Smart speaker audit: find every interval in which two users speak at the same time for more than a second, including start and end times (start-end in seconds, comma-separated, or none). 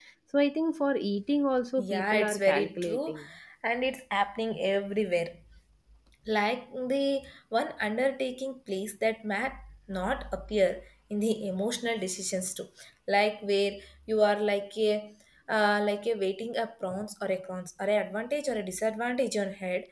1.8-3.1